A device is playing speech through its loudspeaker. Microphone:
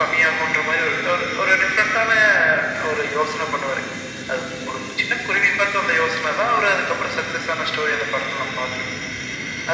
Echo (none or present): present